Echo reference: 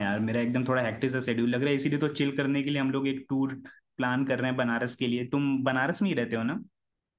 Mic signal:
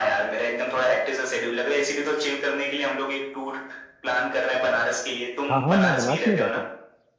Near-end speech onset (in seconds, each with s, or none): 5.5 s